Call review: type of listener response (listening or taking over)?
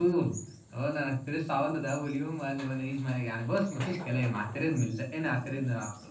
taking over